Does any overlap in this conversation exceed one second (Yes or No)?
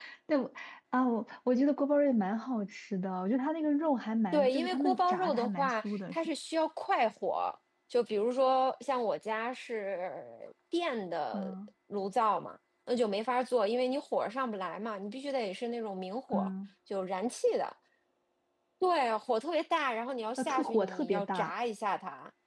Yes